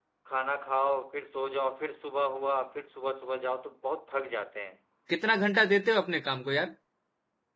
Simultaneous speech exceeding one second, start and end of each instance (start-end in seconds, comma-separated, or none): none